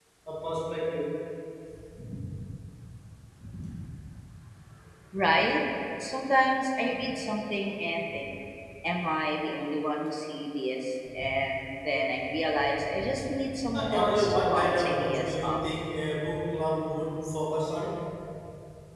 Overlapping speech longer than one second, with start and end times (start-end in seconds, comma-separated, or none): 13.7-15.6